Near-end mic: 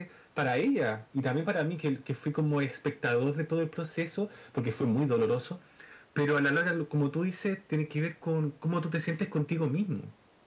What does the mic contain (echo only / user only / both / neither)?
echo only